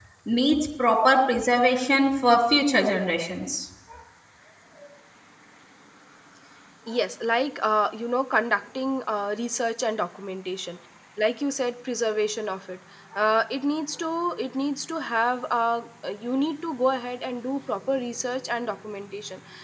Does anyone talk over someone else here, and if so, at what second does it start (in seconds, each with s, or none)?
none